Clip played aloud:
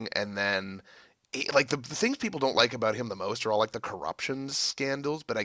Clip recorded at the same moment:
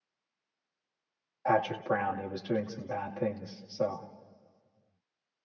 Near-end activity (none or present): present